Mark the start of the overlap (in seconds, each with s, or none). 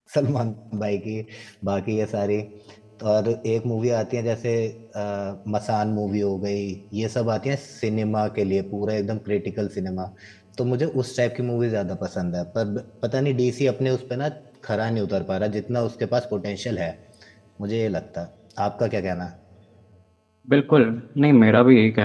none